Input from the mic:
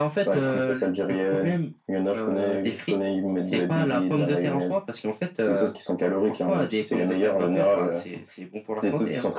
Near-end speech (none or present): none